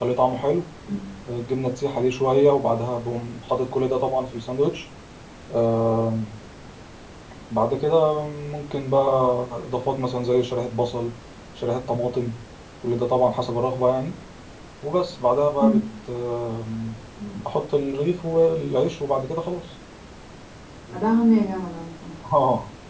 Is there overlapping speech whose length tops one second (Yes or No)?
No